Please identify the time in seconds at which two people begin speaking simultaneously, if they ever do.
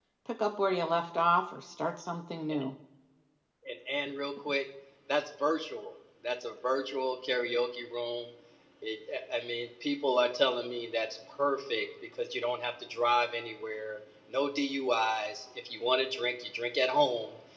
none

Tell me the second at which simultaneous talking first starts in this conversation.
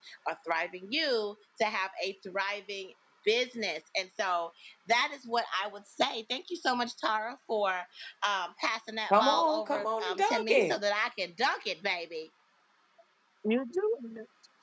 9.1 s

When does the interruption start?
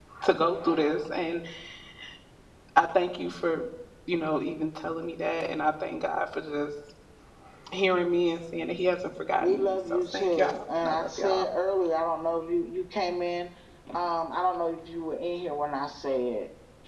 9.4 s

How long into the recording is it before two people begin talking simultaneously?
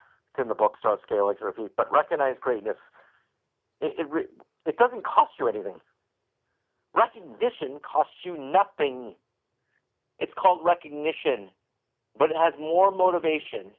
none

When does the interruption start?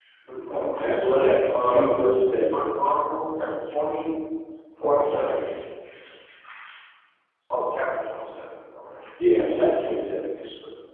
0.5 s

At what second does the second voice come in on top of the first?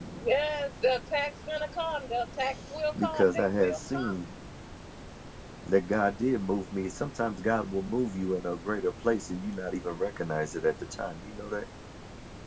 3.0 s

